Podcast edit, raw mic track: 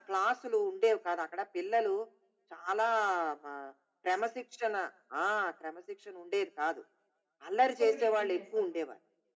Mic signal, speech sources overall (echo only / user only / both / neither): both